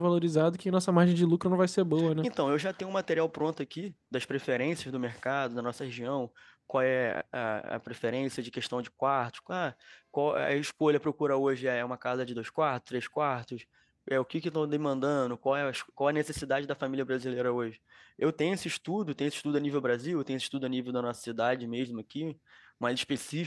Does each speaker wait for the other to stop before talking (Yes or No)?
Yes